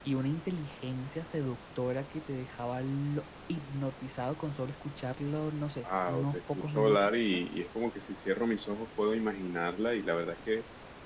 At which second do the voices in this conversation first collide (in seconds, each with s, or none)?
5.8 s